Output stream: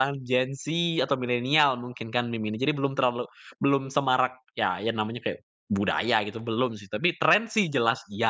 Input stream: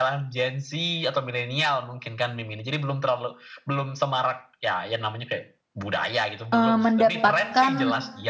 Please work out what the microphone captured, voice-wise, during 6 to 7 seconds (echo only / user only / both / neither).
both